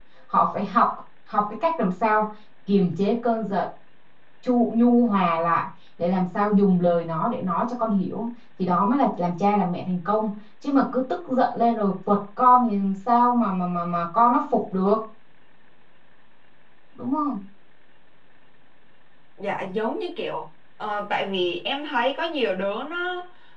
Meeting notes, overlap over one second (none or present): none